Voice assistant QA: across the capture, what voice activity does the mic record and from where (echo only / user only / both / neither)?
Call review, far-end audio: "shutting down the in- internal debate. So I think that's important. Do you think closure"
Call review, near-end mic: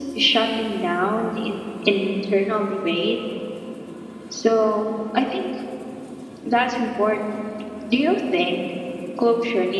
echo only